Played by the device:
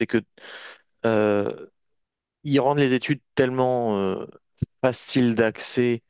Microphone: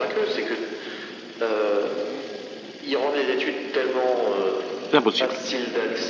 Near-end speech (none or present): present